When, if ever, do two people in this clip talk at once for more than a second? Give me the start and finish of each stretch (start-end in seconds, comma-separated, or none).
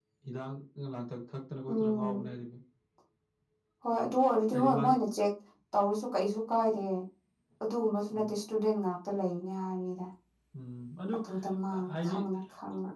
none